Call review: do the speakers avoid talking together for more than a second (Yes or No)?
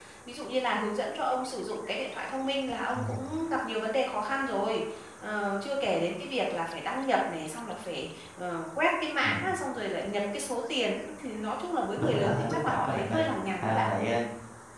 No